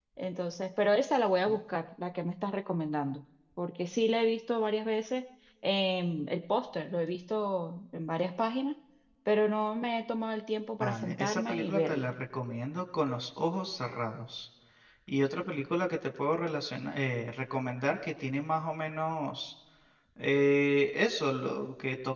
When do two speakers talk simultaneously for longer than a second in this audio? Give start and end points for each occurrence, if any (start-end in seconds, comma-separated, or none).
10.8-12.1